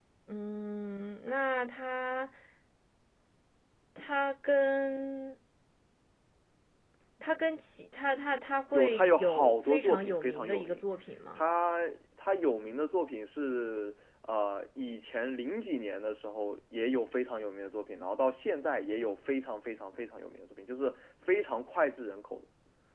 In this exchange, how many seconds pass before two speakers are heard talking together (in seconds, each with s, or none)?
8.7 s